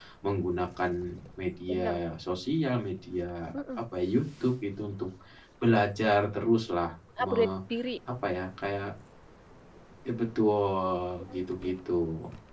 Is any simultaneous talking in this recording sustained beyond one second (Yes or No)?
No